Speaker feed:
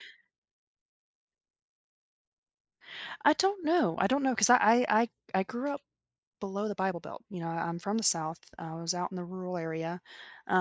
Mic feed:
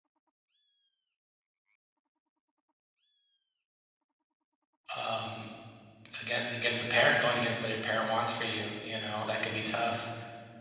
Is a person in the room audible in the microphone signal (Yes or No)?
Yes